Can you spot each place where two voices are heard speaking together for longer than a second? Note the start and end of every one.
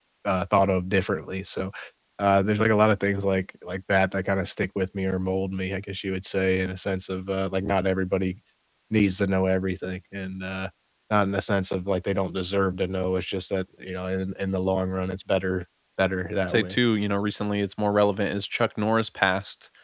none

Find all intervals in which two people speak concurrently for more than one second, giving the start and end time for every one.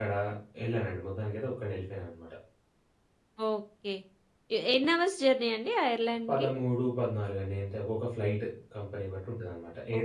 none

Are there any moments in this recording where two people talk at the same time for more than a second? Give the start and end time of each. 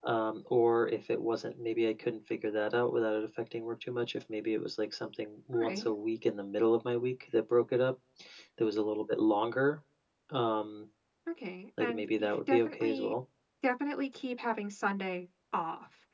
11.8-13.1

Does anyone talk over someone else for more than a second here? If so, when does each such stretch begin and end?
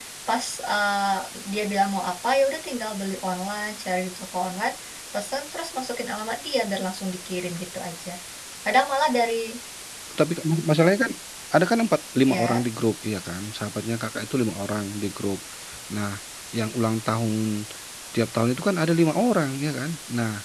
none

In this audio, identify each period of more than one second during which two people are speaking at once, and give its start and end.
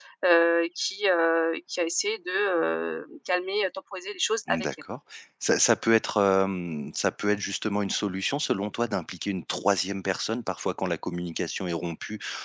none

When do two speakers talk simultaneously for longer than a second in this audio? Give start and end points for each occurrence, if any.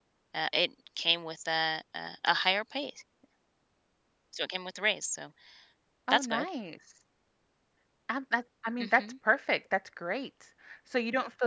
none

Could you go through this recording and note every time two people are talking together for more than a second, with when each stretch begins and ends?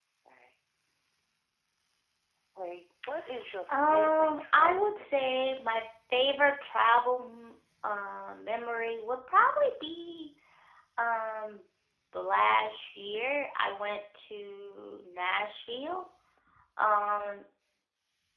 3.7-5.4

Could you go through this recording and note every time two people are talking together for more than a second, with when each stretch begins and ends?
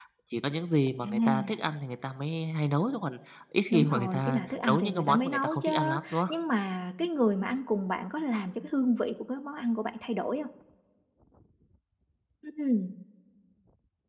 3.7-6.3

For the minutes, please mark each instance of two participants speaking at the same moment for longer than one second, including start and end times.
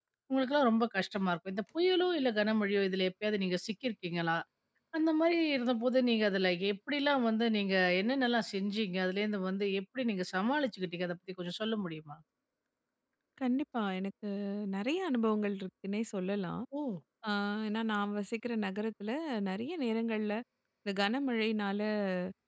none

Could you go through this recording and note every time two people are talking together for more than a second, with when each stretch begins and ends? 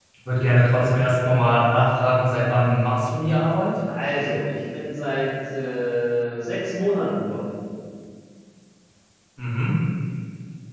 none

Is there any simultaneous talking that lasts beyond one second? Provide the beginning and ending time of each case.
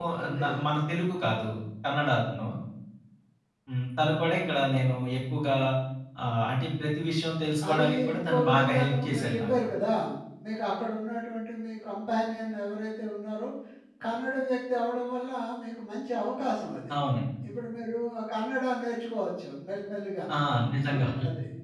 7.7-9.5

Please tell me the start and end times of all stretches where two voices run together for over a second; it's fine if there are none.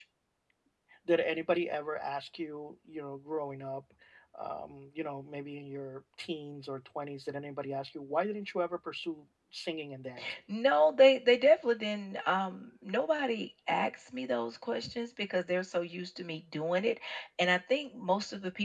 none

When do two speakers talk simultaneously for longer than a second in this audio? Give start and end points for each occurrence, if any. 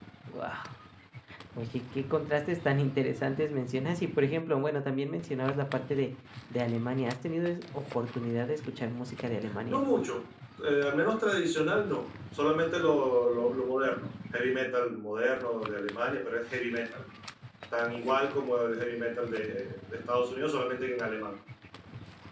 none

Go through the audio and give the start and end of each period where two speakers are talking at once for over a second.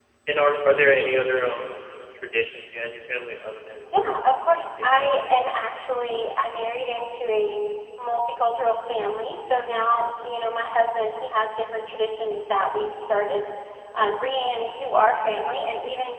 3.9-5.5

